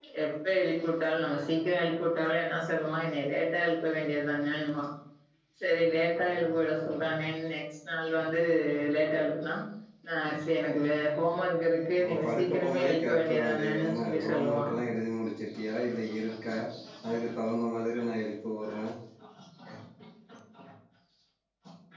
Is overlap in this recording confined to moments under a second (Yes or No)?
No